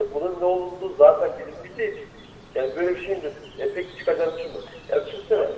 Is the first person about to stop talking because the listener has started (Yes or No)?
No